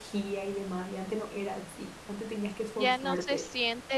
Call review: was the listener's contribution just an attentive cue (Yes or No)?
No